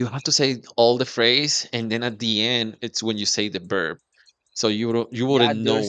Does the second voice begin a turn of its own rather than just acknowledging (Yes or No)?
Yes